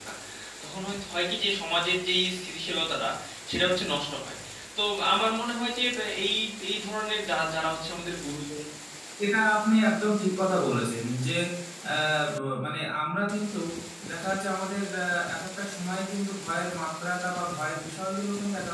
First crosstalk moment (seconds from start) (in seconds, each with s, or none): none